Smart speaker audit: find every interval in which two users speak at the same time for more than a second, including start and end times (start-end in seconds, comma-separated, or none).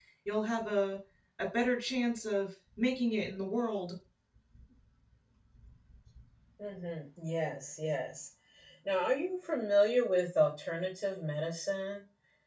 none